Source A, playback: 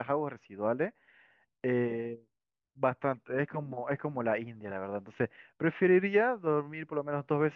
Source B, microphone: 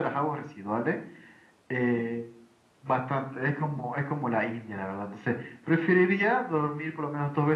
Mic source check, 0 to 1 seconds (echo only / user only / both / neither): echo only